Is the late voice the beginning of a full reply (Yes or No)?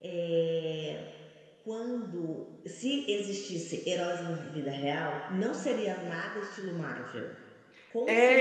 Yes